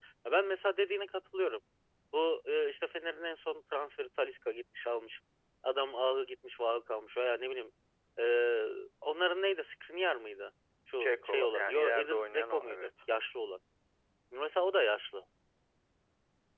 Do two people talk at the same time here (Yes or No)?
Yes